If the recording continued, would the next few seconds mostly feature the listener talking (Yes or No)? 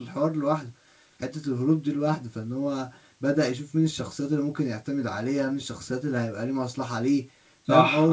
Yes